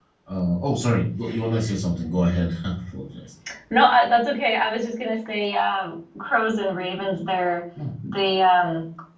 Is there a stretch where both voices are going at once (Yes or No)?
No